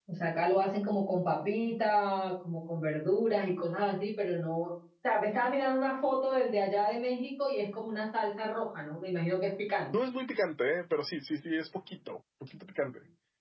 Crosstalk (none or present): none